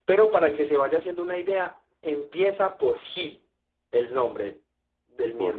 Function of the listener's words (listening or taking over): taking over